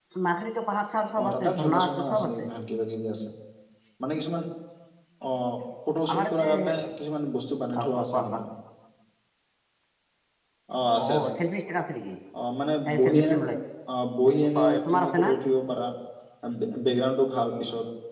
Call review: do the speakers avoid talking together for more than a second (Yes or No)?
No